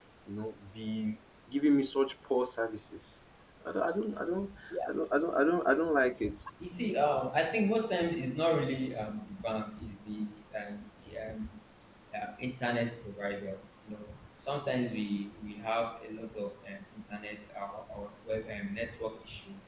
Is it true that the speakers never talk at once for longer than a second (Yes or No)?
Yes